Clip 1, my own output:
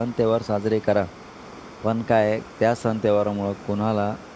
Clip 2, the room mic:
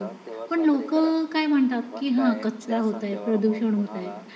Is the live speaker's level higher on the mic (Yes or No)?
Yes